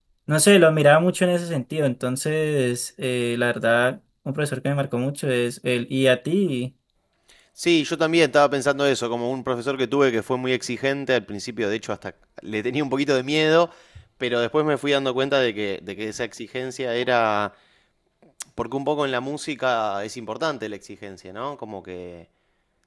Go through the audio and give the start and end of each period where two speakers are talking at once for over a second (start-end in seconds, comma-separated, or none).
none